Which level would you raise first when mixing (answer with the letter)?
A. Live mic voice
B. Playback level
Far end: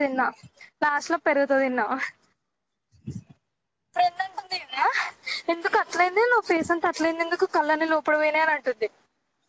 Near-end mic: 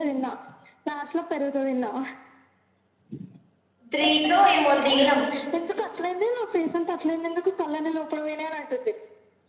B